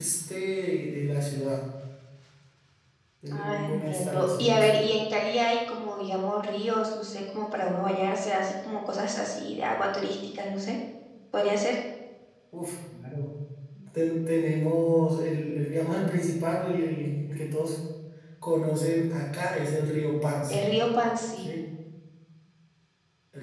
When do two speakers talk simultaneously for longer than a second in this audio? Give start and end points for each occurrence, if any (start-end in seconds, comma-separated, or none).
3.3-4.7